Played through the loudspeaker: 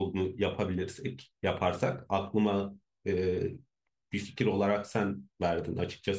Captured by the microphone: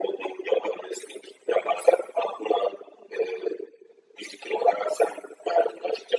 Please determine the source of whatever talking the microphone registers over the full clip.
echo only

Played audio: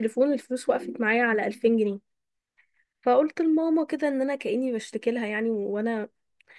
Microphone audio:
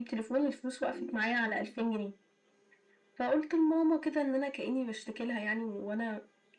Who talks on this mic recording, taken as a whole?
echo only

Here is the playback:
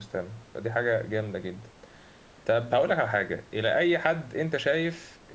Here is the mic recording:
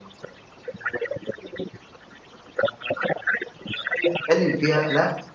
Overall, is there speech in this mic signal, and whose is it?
both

